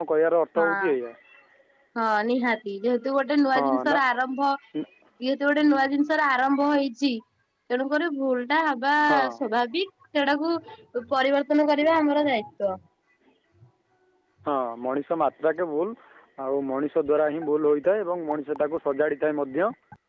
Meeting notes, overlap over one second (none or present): none